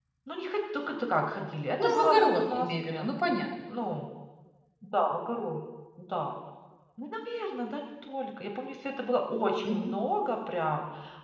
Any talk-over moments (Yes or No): Yes